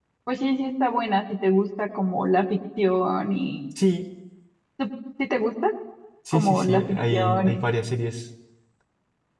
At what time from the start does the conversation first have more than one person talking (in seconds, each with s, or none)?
6.3 s